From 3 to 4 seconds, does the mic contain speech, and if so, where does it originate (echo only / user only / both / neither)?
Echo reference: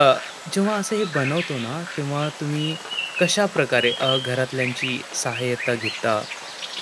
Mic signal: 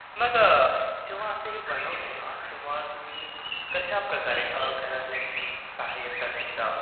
echo only